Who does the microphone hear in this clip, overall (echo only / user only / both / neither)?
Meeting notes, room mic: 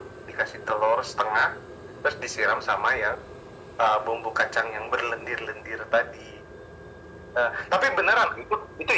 echo only